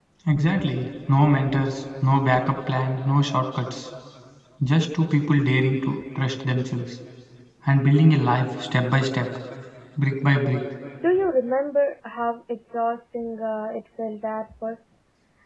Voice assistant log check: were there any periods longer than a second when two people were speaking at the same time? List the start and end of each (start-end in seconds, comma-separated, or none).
none